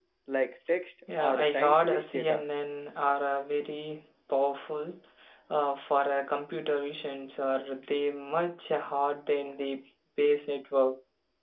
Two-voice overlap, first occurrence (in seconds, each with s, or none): 1.2 s